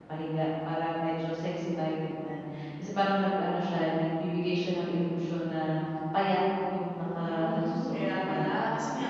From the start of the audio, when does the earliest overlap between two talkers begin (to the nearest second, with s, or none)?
7 s